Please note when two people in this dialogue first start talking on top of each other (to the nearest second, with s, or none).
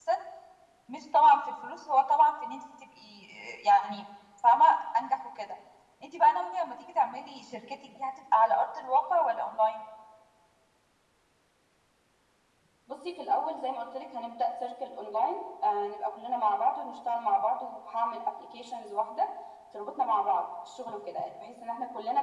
none